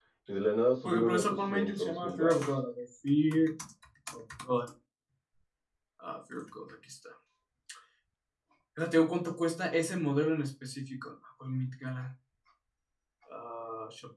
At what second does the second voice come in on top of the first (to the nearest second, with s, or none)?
1 s